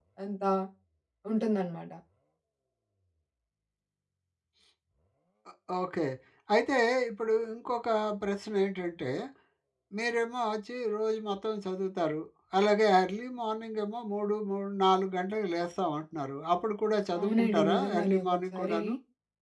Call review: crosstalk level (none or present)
present